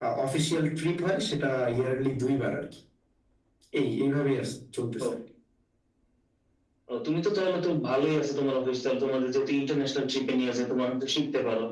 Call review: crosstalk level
none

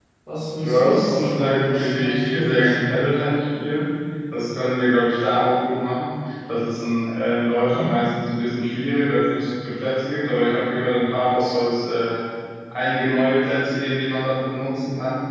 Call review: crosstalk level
present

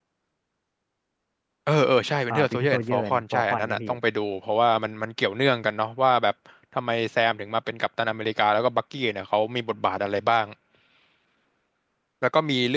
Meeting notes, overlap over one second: present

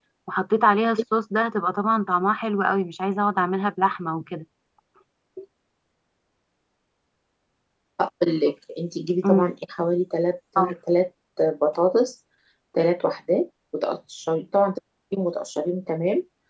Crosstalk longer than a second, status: none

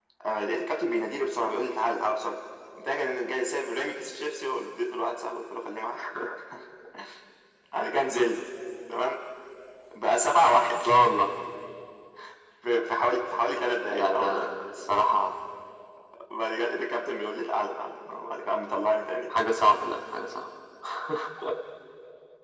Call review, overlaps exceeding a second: none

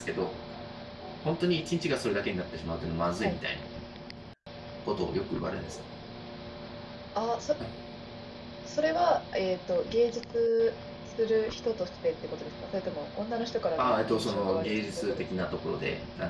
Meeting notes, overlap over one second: present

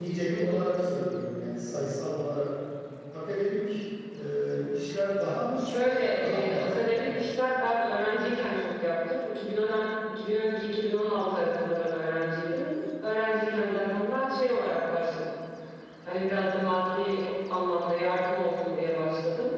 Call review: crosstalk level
present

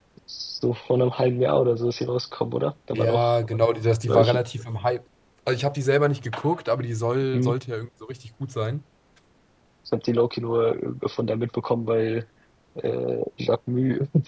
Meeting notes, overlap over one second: none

